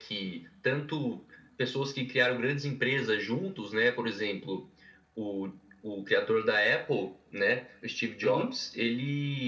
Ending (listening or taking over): listening